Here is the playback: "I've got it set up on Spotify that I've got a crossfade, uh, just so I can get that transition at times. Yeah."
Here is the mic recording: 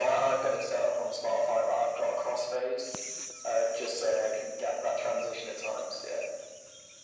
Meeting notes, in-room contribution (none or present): none